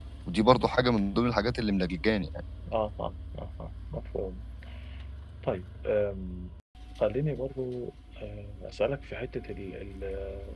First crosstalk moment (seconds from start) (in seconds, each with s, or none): none